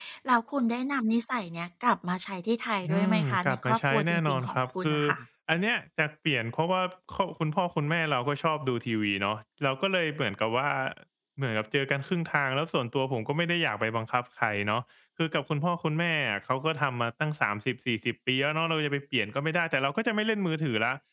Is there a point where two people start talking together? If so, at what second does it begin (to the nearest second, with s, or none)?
3 s